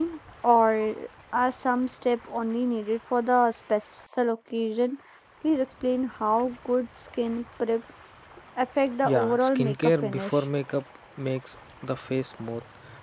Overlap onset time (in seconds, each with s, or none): 9.0 s